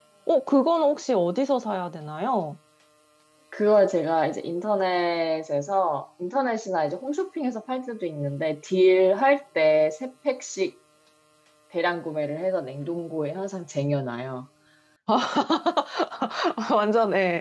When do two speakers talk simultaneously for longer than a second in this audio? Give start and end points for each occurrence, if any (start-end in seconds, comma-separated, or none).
none